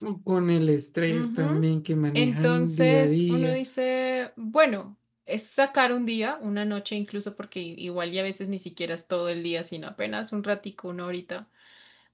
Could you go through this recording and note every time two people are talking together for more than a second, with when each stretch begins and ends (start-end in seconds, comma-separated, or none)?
2.1-3.6